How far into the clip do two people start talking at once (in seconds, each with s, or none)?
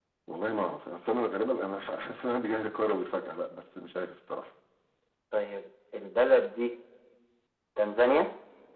none